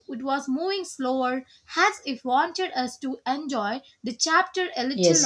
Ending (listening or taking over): taking over